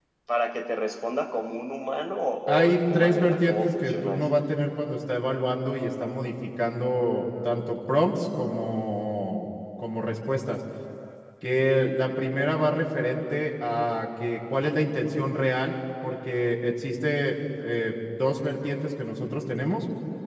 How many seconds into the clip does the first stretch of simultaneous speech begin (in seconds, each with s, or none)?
2.5 s